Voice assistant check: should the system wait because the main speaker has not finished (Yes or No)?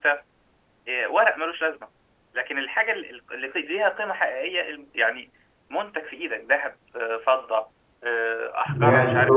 No